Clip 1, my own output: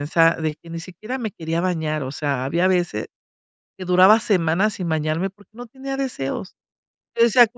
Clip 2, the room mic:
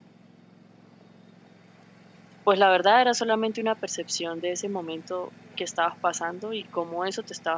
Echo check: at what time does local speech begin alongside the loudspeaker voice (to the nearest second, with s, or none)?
2 s